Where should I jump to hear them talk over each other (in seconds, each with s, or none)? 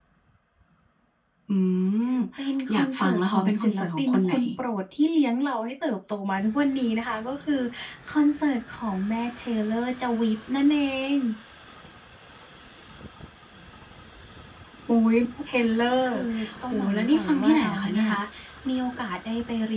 2.7 s